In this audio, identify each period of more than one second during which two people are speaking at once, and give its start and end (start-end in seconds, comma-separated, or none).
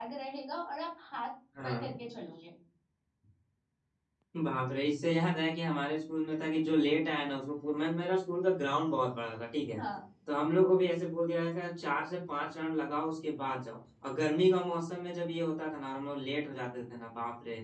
none